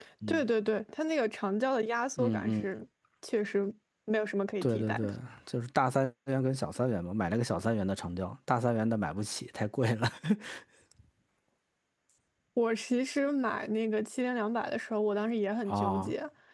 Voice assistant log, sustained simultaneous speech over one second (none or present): none